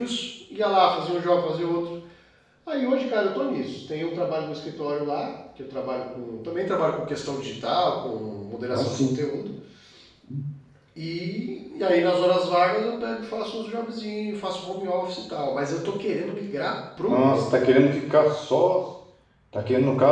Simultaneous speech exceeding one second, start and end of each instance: none

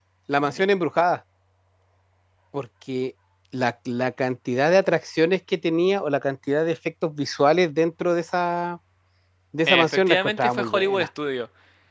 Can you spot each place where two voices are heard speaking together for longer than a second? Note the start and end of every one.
9.7-11.1

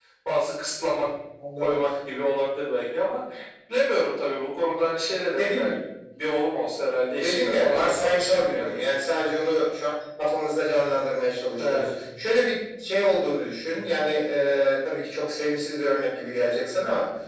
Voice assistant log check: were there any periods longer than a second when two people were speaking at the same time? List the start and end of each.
7.2-8.8

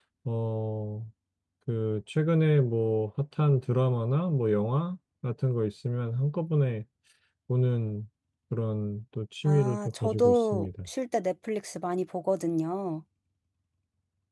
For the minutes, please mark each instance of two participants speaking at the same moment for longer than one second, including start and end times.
9.4-10.7

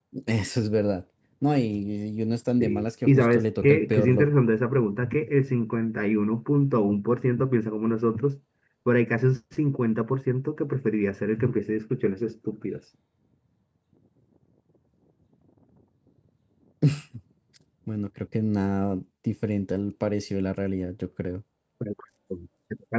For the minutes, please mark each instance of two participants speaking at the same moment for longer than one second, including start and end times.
2.6-4.3

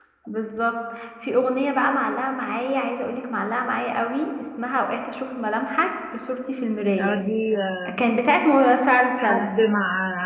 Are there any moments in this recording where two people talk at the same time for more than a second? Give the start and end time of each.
none

